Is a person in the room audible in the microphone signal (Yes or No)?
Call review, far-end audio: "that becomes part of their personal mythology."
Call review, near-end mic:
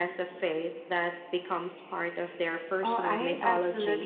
Yes